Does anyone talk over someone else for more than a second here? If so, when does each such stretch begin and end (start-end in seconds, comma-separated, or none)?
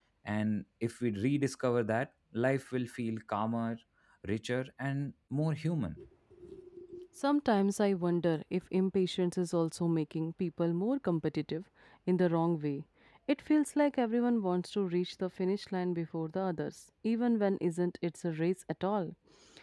none